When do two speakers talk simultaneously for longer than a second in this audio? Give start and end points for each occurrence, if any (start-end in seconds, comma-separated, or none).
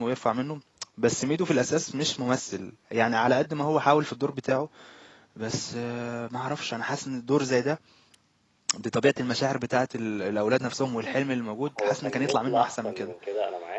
11.8-13.1